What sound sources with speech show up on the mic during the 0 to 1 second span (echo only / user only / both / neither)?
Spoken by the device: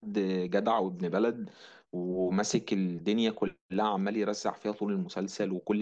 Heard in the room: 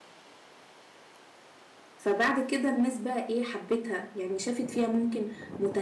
neither